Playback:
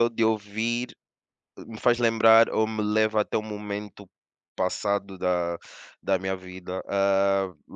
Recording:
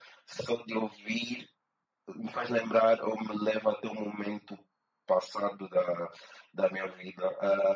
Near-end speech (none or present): none